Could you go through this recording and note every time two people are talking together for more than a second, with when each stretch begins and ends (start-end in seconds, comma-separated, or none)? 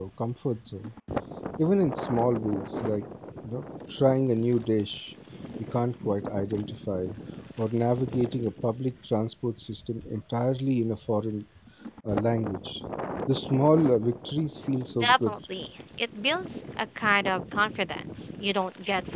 none